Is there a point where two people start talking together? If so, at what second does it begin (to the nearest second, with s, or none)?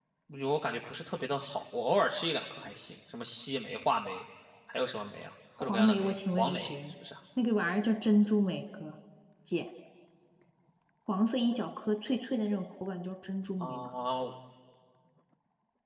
6 s